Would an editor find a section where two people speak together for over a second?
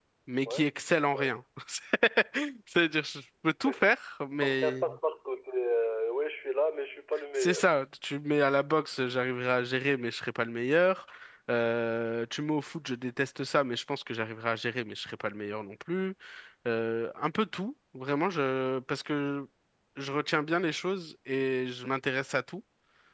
No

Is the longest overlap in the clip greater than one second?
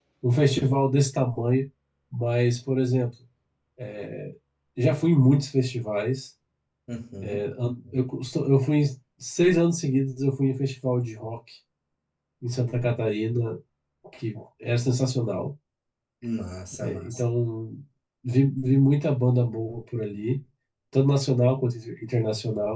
No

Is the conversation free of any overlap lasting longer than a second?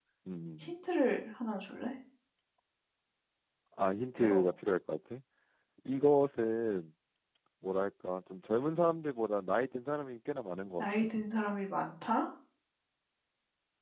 Yes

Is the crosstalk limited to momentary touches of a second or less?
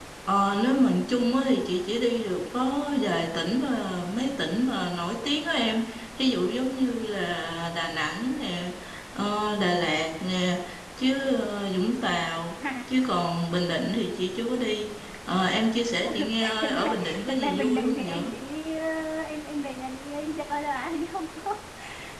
No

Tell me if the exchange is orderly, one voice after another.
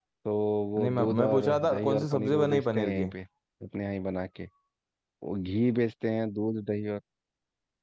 No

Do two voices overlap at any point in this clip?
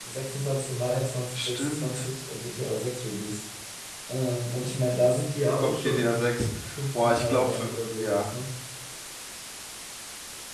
Yes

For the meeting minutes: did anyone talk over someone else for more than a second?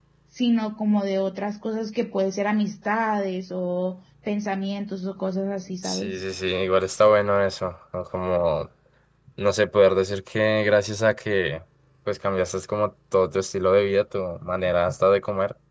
No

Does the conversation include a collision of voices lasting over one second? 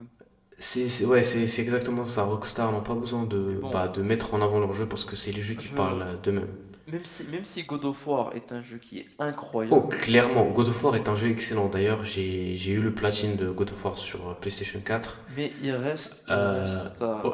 No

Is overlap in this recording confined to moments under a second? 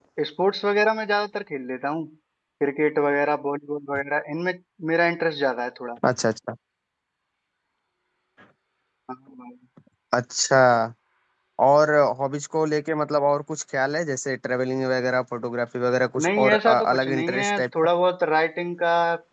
No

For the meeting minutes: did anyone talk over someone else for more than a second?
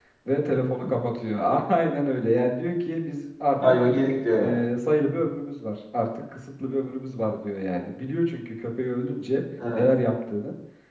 No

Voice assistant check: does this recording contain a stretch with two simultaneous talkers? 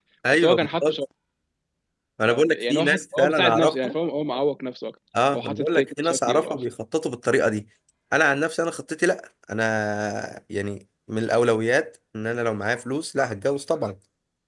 Yes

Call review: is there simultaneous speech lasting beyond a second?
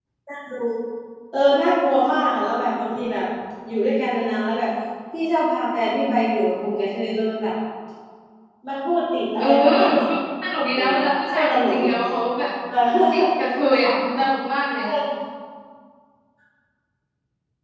Yes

